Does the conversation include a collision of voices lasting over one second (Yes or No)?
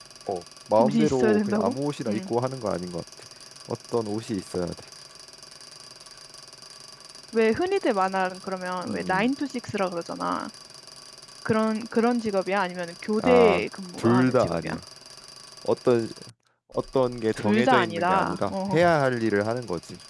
Yes